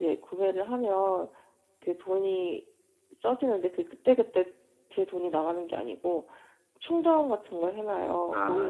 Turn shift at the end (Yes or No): No